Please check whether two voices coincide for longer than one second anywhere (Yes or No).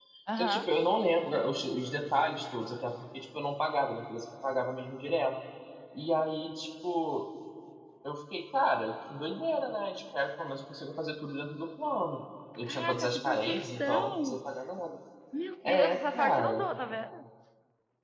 Yes